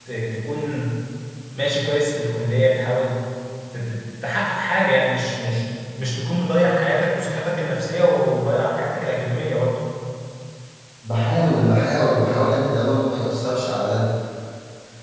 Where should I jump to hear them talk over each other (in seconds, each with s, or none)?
none